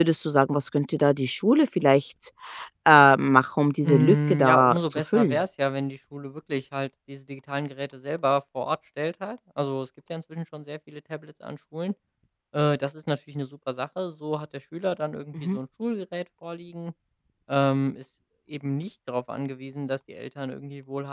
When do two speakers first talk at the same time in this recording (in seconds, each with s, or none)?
3.8 s